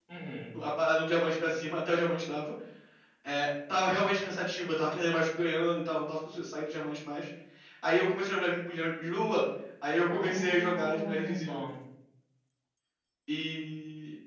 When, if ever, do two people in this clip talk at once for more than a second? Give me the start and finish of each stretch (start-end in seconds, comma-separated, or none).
10.1-11.6